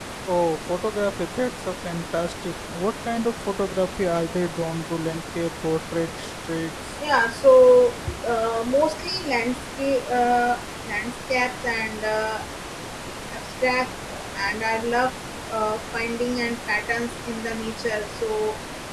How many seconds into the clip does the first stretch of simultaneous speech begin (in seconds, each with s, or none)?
none